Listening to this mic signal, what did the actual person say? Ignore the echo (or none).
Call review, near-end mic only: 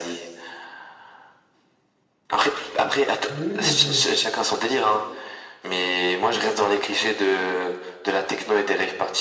vois. Mais oui, mais je, je-